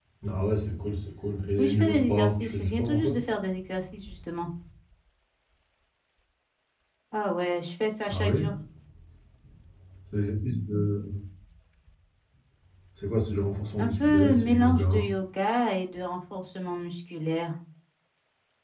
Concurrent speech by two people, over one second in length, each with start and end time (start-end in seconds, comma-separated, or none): 1.6-3.1, 13.8-15.0